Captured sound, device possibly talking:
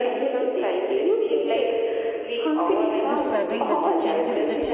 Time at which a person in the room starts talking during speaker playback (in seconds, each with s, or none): 3.0 s